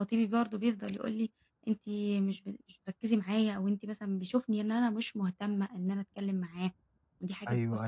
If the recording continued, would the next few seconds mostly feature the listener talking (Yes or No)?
Yes